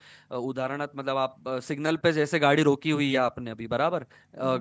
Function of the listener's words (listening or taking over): listening